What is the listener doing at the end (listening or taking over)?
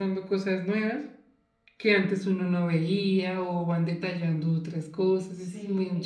taking over